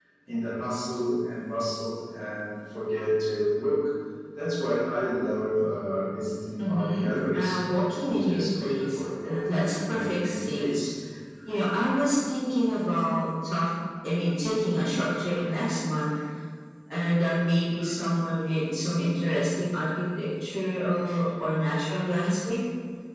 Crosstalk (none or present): present